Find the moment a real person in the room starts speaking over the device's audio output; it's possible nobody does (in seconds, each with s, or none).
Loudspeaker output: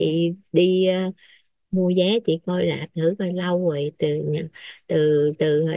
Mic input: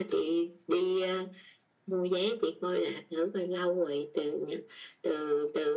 none